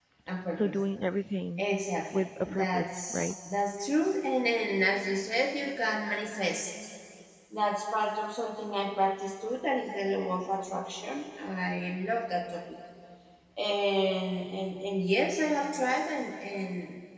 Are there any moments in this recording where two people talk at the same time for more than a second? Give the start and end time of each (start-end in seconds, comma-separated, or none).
2.1-3.3